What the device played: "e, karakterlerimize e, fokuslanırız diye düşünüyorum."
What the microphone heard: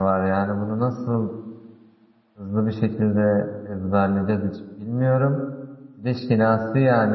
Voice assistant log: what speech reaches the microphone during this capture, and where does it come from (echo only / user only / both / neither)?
user only